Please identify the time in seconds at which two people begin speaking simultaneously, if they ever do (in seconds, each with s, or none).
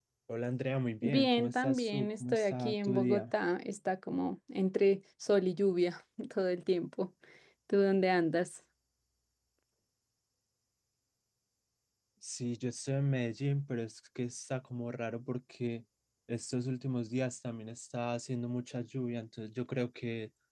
1.0 s